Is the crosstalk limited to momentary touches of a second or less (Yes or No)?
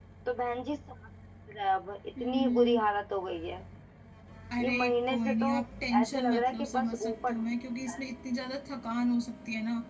No